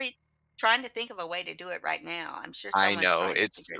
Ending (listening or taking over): taking over